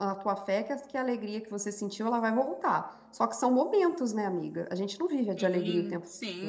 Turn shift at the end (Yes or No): Yes